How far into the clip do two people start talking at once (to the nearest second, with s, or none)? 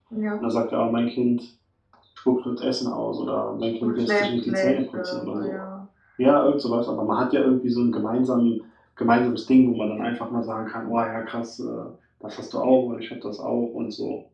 4 s